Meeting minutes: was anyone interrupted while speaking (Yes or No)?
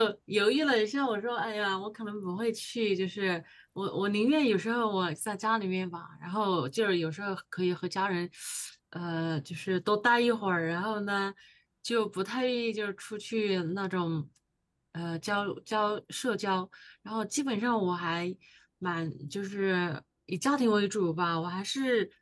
No